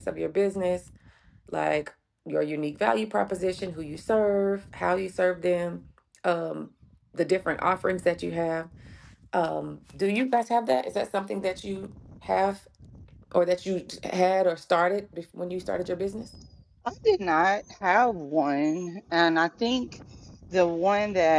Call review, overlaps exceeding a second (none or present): none